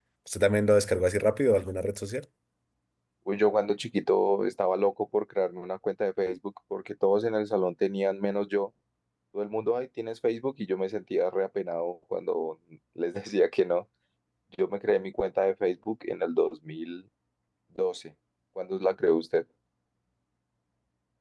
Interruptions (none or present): none